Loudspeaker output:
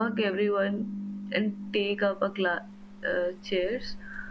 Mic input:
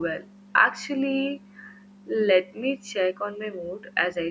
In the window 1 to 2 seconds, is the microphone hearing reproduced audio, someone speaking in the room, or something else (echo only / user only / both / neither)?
user only